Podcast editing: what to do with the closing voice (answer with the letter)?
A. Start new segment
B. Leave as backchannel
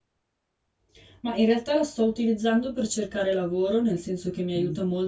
B